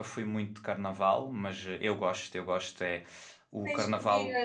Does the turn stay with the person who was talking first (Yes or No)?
No